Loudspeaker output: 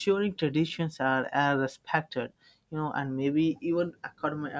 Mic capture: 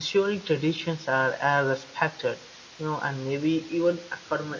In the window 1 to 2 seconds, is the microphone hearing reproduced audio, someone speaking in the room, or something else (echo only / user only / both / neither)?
echo only